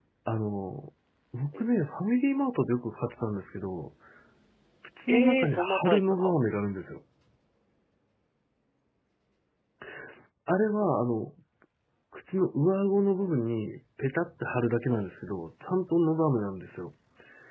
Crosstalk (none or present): present